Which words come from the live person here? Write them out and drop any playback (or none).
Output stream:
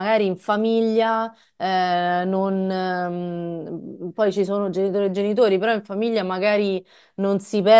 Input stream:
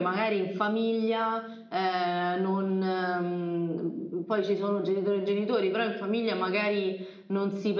none